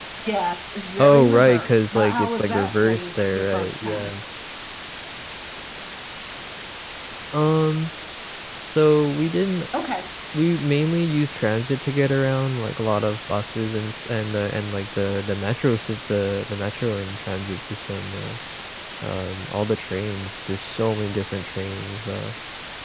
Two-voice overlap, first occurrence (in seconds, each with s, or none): 1.0 s